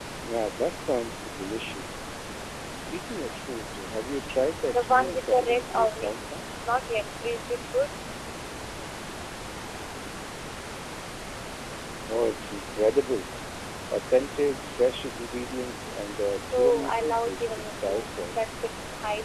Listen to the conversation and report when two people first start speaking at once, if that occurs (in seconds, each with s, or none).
4.7 s